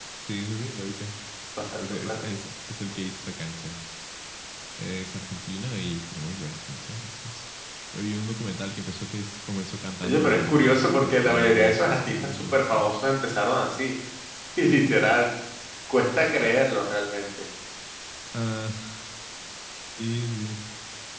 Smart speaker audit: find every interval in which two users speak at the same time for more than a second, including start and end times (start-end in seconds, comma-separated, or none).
10.0-13.0